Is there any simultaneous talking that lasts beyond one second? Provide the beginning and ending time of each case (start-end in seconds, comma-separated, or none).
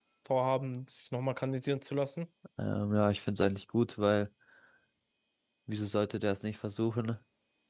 none